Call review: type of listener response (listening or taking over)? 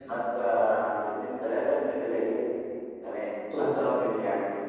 listening